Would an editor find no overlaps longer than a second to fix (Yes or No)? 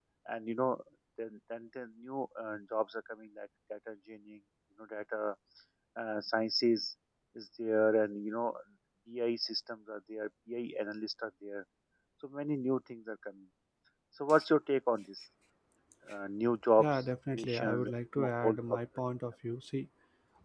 No